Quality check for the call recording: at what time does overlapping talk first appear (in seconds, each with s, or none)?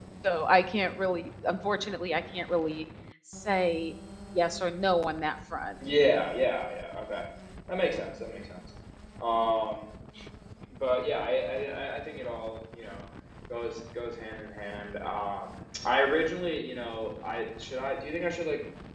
none